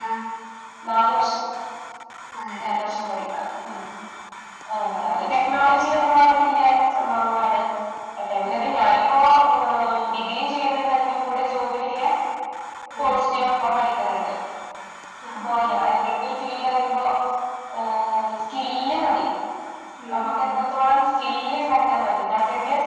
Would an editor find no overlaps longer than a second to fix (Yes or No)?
Yes